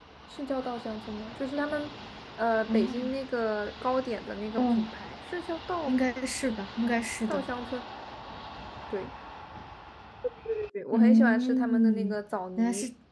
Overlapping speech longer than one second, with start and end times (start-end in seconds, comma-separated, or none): 10.9-12.2